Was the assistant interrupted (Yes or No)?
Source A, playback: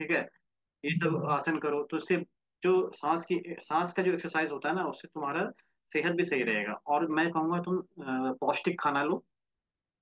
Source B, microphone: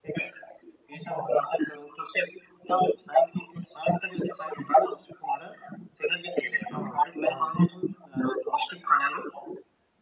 Yes